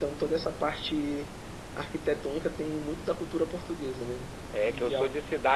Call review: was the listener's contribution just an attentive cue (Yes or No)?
No